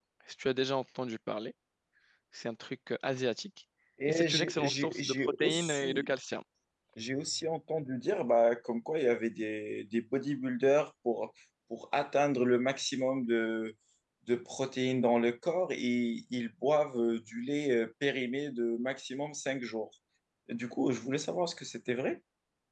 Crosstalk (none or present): present